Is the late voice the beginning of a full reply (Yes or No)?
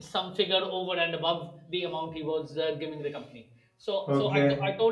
No